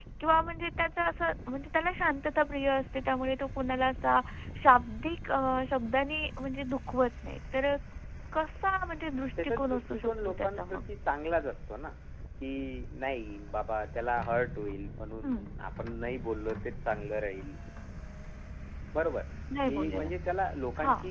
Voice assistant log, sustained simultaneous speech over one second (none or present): present